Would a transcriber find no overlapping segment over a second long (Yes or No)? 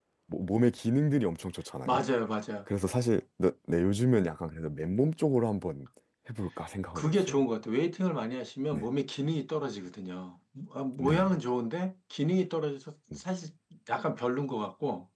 Yes